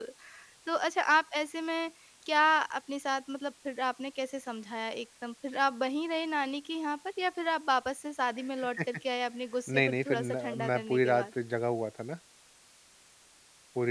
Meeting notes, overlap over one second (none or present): present